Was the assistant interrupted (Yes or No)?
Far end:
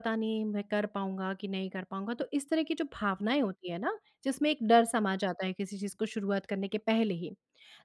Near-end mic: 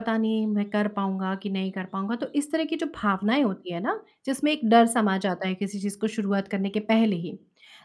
No